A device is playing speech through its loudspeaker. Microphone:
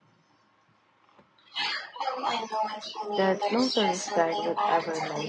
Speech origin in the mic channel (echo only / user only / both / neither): both